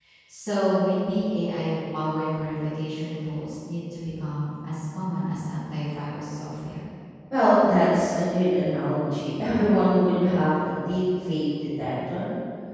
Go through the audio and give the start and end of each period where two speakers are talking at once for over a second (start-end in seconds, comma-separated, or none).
none